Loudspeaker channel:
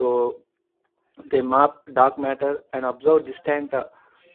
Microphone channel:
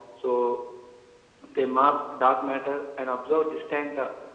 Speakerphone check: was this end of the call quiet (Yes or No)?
Yes